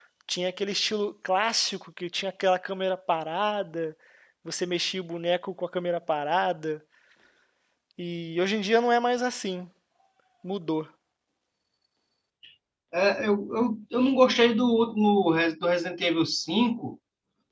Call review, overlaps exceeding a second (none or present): none